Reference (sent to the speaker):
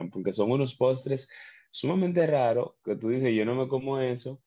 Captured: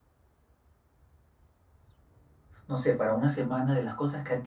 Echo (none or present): none